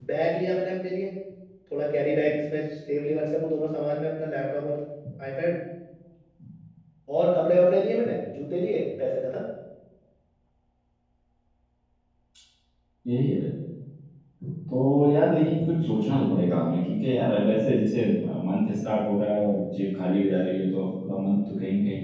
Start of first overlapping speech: none

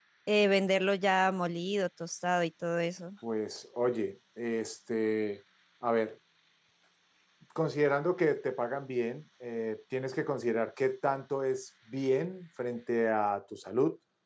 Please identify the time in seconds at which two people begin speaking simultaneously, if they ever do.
none

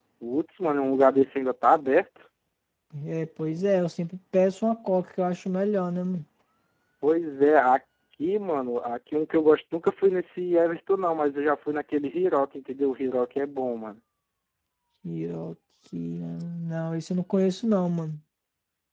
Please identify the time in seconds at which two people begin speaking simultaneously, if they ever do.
none

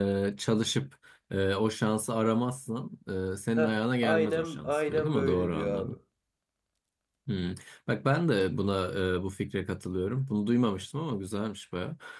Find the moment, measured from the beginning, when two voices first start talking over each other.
3.6 s

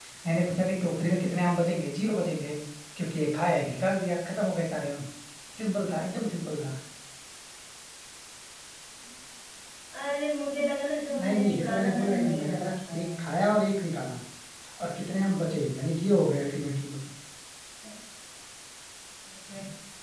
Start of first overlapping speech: 11.1 s

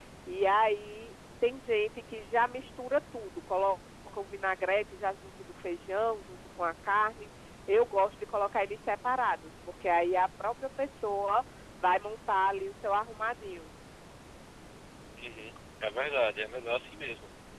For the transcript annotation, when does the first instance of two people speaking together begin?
none

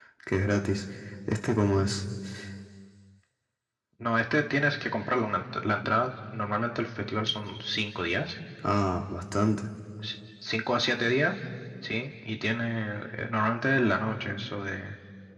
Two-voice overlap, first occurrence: none

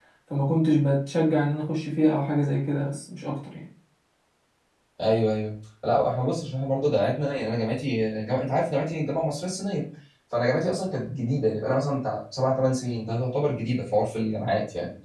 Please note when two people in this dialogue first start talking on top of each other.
none

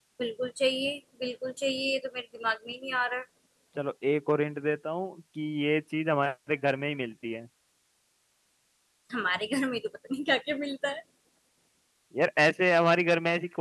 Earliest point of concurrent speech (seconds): none

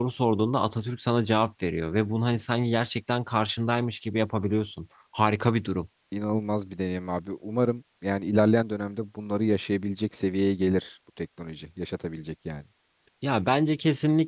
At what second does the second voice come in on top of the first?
none

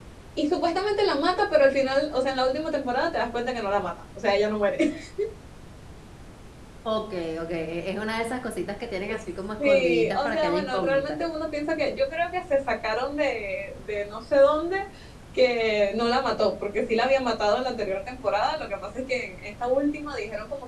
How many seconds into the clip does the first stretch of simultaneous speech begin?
9.6 s

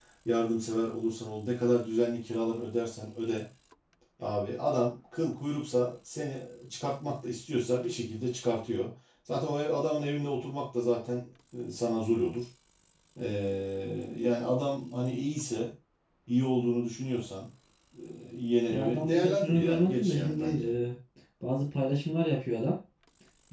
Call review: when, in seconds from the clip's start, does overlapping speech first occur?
18.7 s

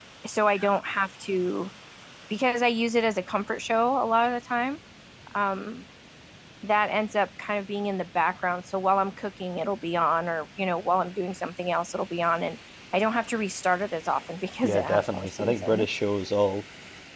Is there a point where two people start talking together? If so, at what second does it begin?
14.6 s

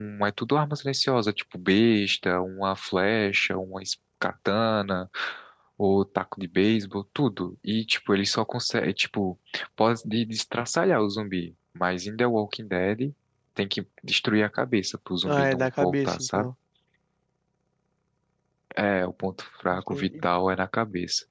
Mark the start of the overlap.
15.2 s

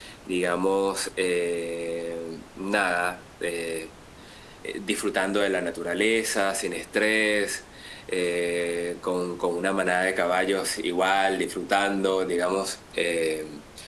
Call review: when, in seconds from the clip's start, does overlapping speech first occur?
none

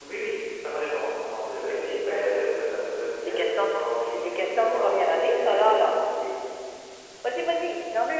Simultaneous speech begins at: 3.2 s

